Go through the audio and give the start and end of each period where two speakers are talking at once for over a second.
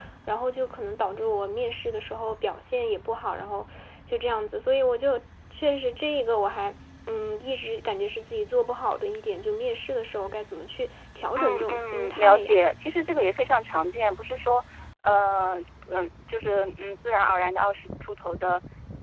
11.4-12.6

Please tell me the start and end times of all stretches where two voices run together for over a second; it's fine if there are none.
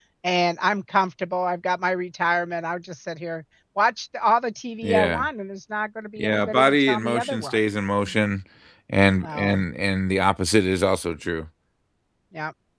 6.2-7.6

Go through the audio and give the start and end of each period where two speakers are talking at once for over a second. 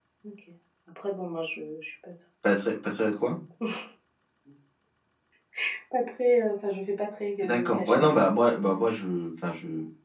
7.4-8.8

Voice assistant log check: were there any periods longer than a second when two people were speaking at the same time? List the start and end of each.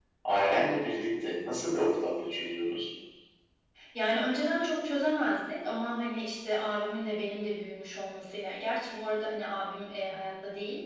none

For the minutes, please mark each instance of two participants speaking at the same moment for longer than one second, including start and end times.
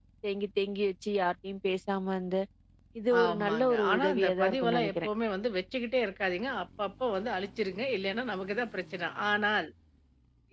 3.2-5.1

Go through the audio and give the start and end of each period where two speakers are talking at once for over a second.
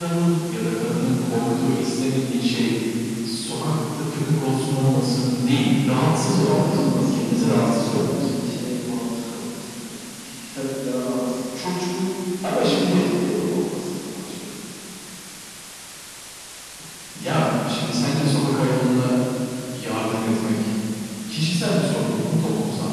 6.3-8.3

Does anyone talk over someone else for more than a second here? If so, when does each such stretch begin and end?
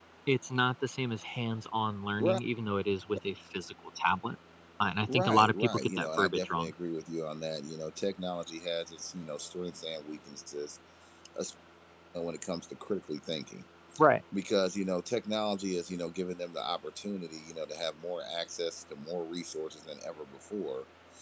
5.1-6.7

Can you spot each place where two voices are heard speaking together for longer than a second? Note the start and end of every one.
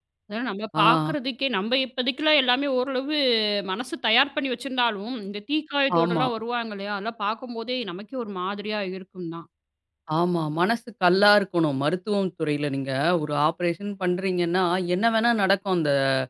none

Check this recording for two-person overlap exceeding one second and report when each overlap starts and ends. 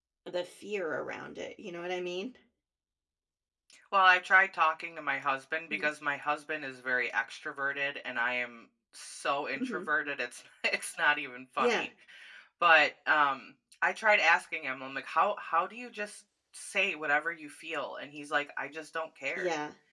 none

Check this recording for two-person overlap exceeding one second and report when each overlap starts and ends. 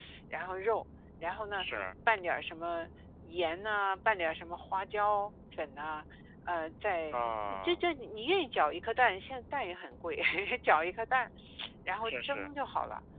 none

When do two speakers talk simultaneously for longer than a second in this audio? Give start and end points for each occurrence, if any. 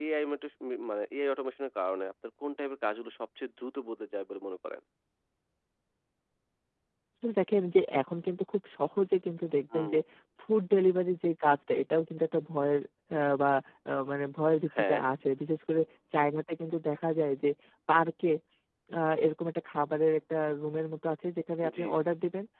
none

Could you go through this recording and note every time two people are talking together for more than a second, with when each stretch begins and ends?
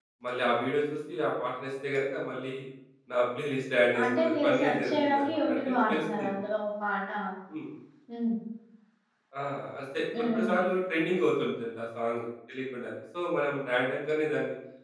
4.0-6.3

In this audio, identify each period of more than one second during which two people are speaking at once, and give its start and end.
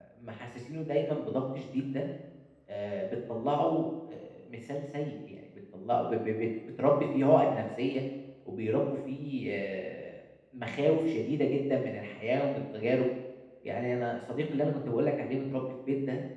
none

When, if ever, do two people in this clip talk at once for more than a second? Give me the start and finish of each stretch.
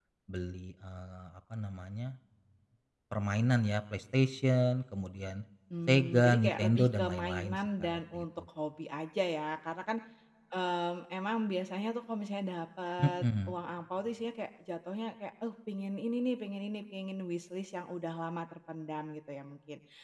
5.9-8.2

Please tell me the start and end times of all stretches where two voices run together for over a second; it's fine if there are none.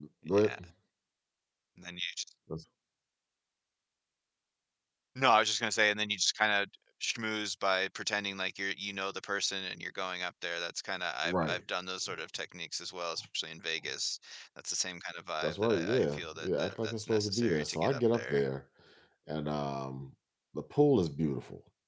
15.4-18.4

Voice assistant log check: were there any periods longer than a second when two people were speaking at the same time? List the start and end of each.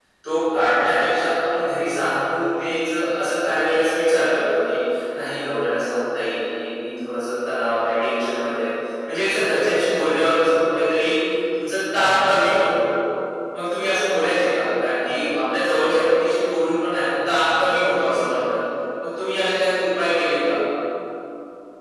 none

